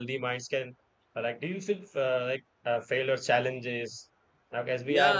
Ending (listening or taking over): taking over